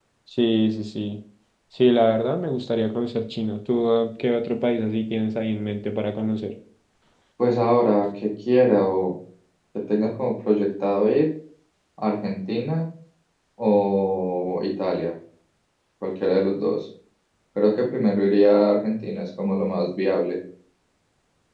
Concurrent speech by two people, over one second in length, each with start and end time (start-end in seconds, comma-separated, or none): none